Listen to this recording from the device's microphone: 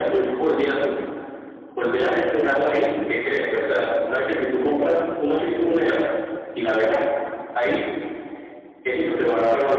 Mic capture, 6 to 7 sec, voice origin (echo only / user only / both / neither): echo only